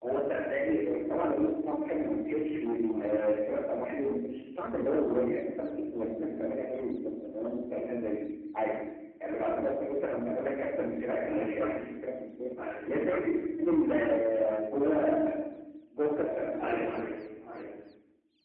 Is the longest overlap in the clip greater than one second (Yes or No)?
No